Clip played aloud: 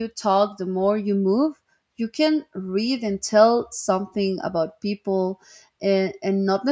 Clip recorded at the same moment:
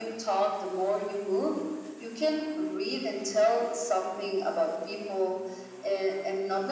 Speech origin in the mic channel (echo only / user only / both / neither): echo only